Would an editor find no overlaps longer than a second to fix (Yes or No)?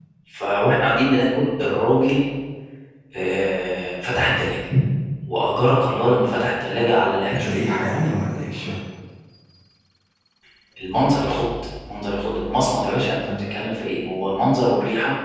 Yes